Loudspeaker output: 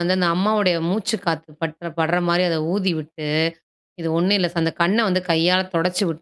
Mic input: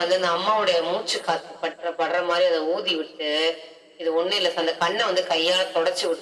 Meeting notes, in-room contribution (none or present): none